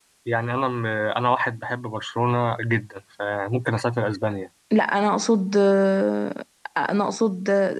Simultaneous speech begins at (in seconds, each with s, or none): none